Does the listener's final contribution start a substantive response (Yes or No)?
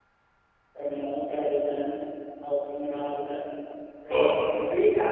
No